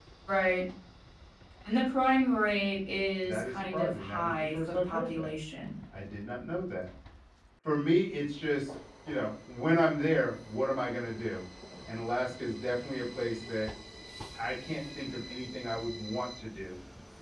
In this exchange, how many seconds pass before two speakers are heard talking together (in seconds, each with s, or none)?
3.2 s